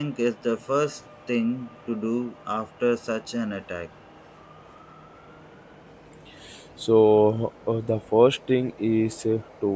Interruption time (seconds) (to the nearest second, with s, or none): none